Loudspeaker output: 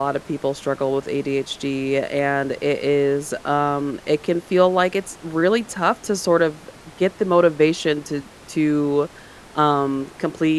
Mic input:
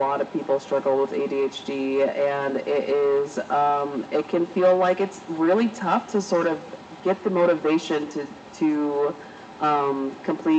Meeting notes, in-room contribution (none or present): none